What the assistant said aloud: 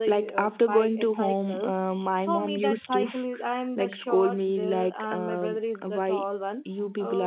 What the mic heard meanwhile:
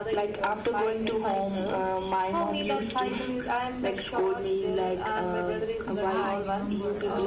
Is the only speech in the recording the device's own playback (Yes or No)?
No